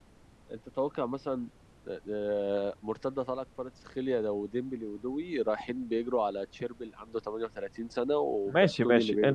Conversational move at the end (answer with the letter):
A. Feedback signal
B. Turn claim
B